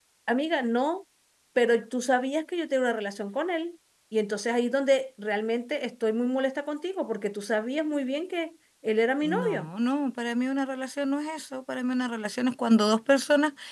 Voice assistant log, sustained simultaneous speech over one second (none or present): none